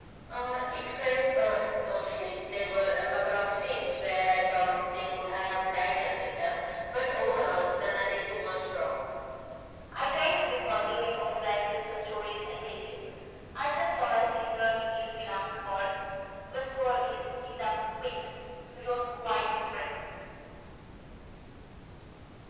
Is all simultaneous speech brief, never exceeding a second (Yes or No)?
Yes